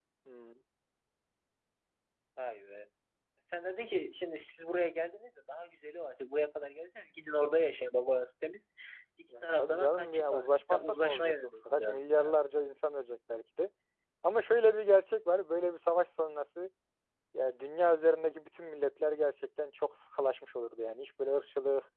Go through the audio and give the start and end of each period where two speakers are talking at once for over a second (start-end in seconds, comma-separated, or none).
9.4-12.3